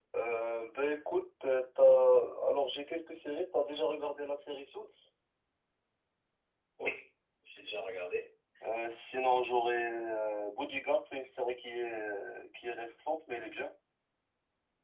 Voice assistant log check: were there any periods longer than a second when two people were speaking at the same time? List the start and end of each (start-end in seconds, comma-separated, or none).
none